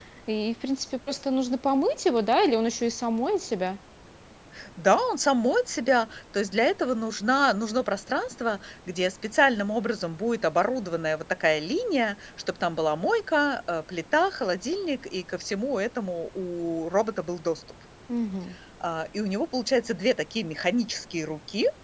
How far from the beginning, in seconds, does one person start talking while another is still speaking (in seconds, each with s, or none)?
none